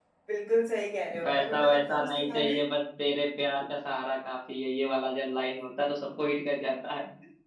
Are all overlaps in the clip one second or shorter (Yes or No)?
No